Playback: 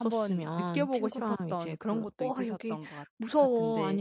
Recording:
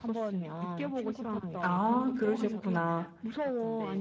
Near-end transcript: 아. 그러셨구나.

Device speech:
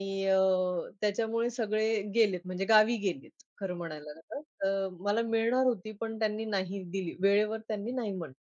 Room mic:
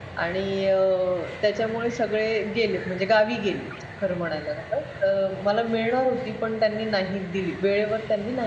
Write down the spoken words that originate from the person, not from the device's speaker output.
none

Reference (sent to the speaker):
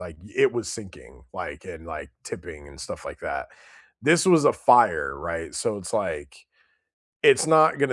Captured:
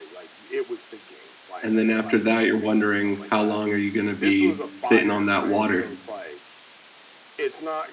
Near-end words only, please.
And then after that, you're wondering how long are you gonna be sitting on that water.

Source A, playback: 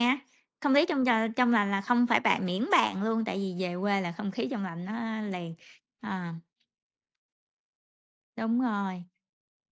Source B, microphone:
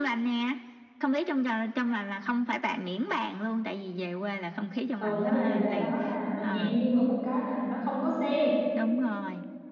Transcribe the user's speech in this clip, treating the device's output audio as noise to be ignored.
thường á, là về đó là mình ngạc nhiên ở một cái là, nó không có xe

